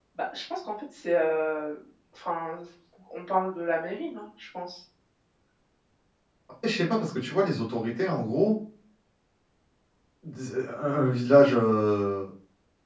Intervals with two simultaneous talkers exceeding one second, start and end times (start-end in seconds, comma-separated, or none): none